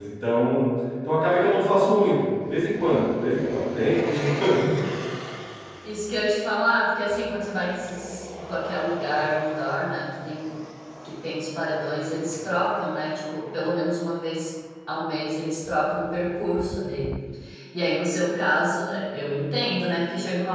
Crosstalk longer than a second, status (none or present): none